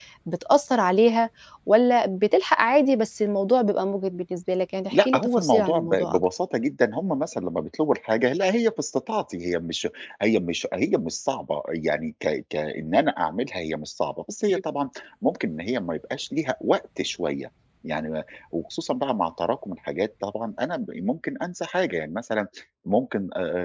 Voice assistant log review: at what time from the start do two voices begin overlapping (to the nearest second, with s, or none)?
5 s